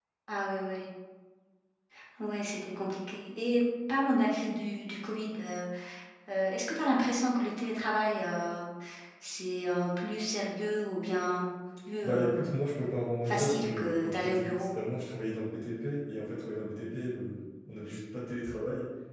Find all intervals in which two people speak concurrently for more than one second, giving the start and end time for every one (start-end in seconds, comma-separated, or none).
13.3-14.7